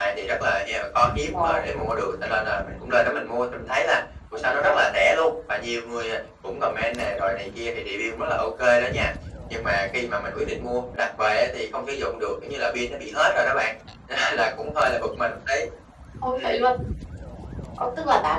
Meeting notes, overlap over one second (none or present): none